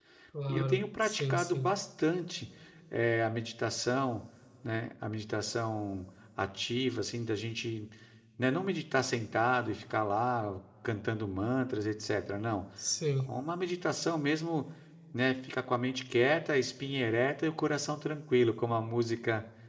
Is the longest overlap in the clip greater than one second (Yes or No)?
Yes